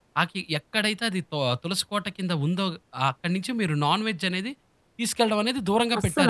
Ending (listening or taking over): taking over